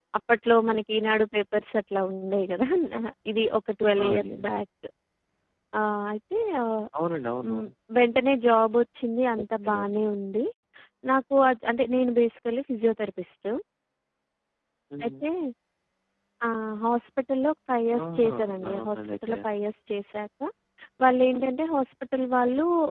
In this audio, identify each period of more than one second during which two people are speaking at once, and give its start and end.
18.0-19.4

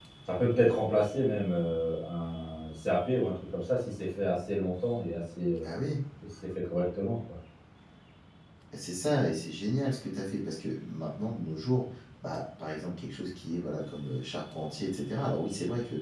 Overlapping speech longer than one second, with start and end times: none

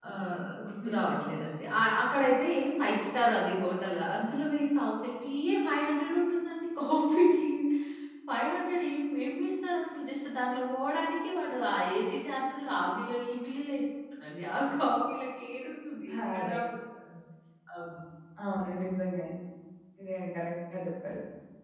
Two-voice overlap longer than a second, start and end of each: none

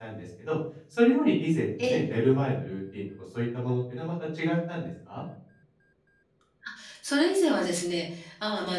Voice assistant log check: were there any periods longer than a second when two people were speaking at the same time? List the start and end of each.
none

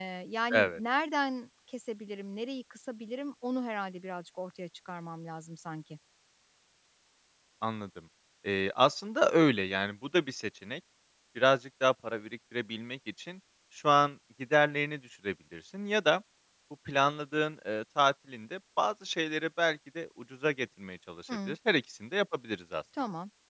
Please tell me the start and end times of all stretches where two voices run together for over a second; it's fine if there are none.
none

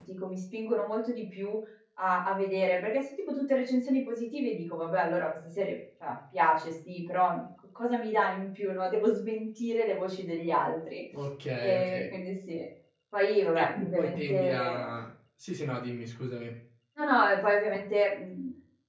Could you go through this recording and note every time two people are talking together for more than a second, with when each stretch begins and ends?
13.6-14.9

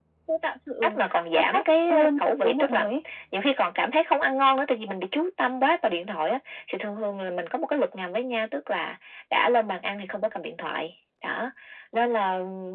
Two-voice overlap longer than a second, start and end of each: 1.3-2.9

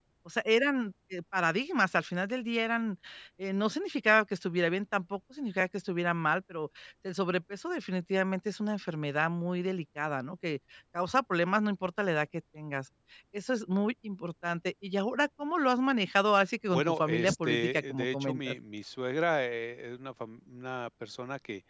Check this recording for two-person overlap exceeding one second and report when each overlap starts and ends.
16.7-18.6

